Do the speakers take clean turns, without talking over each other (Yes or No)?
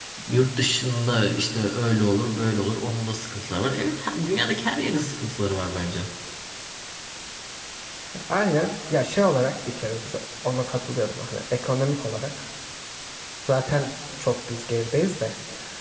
Yes